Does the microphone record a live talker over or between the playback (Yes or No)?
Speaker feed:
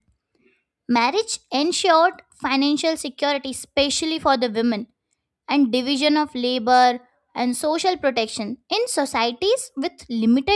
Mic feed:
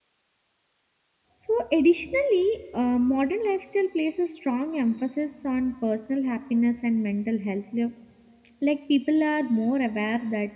Yes